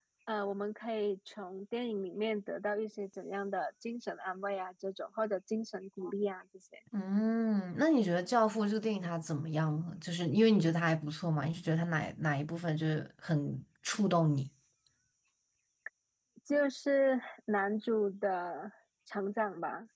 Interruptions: none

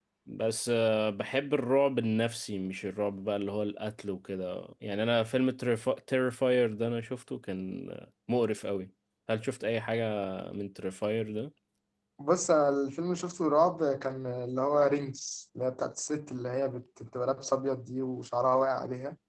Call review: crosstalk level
none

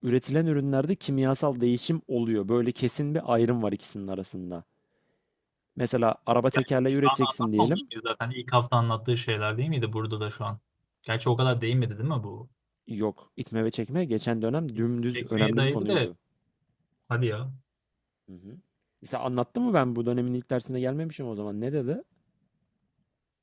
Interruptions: present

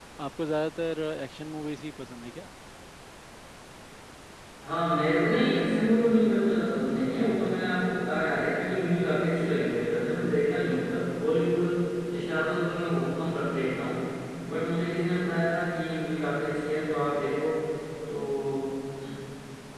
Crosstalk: none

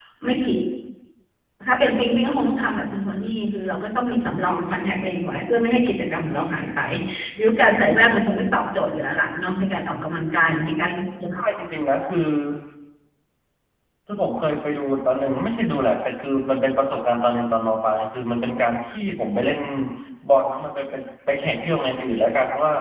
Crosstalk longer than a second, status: none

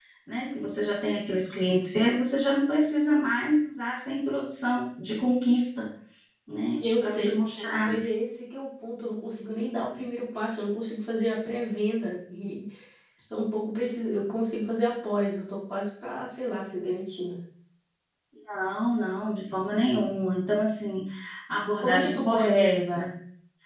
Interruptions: present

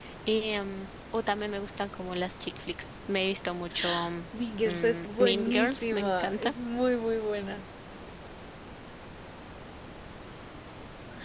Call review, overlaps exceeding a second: present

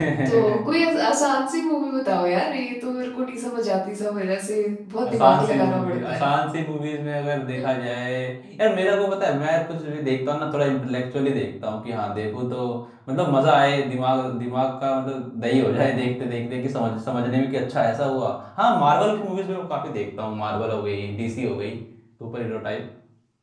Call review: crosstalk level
present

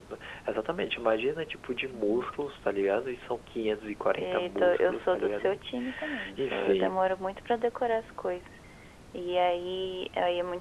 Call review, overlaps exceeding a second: present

